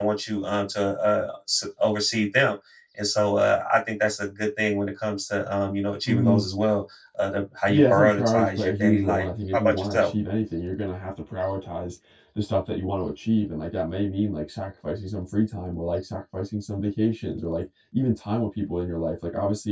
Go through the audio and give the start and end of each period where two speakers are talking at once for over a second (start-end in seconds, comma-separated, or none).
7.7-10.1